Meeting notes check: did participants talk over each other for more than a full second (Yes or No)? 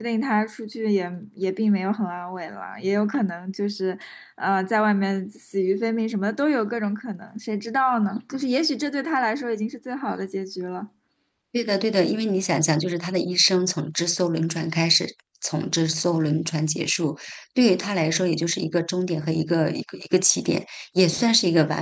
No